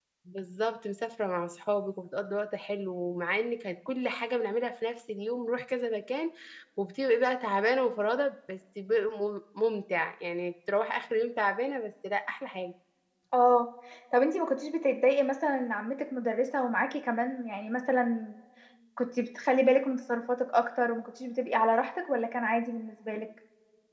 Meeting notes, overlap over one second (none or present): none